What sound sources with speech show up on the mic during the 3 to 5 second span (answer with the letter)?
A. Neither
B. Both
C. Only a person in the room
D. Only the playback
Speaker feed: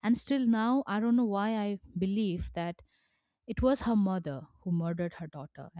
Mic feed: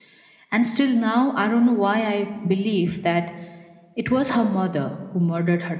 D